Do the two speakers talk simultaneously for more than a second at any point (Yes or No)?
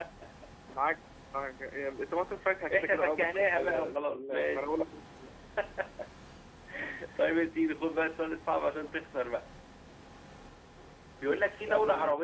Yes